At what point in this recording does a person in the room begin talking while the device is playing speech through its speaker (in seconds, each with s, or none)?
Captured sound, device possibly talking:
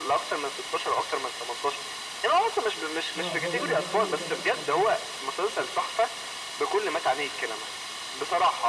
3.1 s